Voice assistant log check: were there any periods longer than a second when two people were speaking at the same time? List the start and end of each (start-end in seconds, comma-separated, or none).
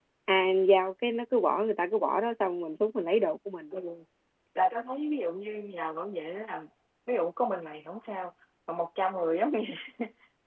none